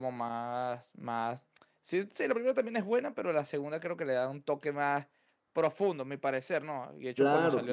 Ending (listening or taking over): taking over